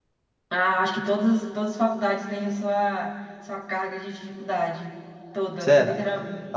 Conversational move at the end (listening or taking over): taking over